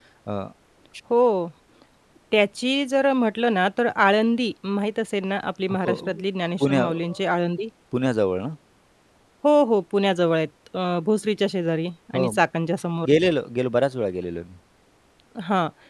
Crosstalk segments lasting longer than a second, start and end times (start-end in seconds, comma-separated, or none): none